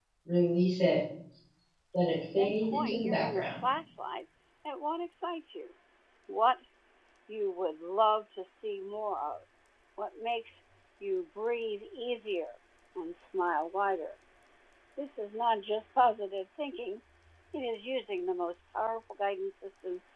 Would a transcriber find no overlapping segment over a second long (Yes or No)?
No